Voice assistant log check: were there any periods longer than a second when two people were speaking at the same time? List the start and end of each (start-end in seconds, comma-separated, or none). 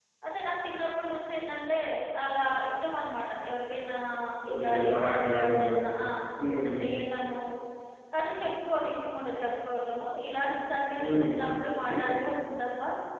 4.5-5.9